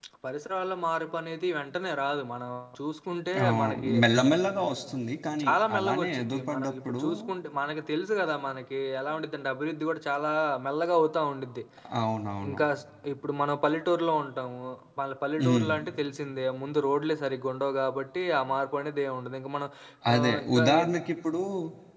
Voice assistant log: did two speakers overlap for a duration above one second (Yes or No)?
Yes